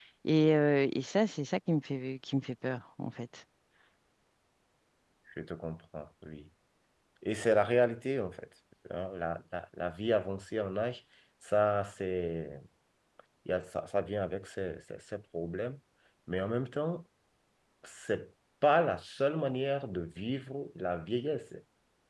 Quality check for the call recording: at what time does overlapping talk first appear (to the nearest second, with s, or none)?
none